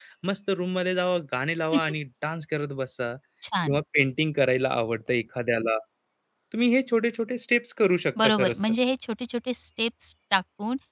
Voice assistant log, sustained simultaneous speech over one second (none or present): none